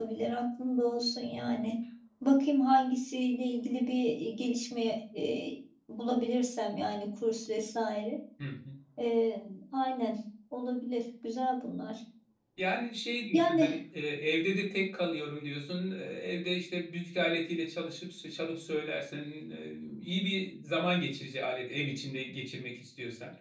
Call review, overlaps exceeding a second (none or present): none